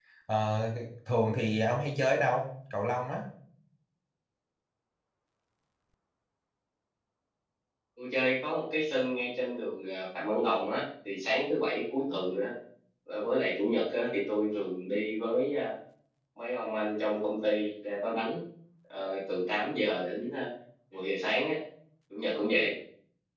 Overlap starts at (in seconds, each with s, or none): none